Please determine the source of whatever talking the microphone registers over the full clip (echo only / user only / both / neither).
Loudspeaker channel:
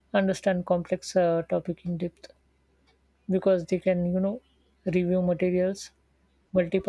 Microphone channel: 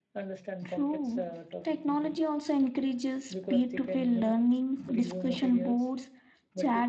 both